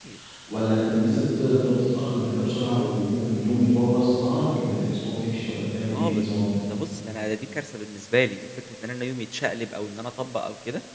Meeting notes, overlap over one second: none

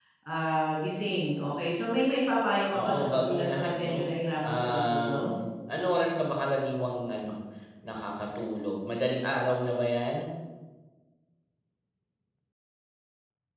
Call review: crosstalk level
present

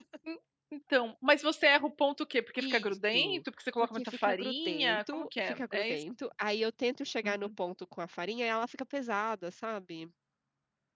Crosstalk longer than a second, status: present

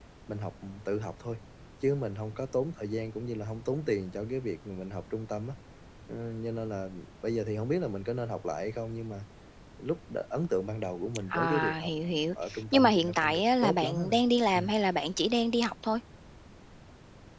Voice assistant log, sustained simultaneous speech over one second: present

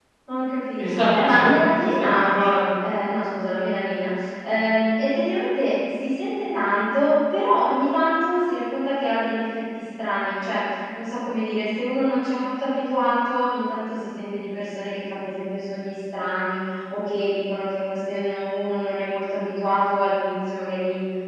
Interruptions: present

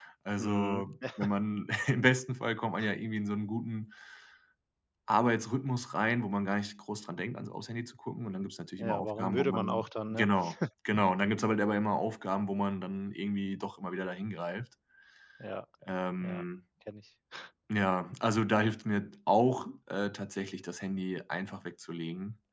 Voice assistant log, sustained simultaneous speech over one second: present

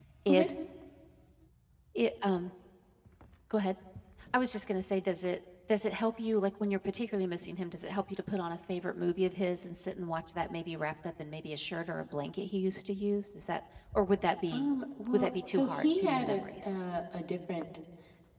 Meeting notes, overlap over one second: present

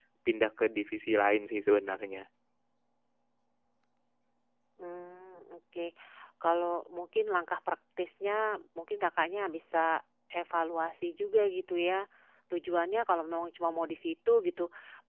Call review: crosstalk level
none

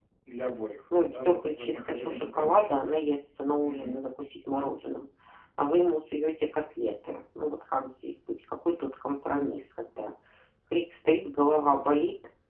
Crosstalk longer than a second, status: present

